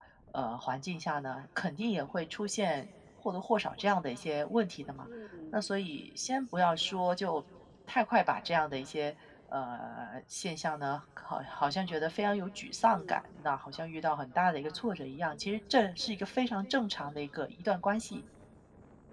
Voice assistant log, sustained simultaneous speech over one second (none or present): none